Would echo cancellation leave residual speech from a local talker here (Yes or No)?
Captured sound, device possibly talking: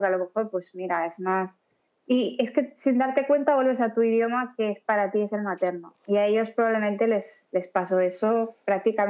No